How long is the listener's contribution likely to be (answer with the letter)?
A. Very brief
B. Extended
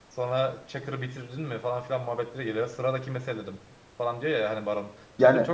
A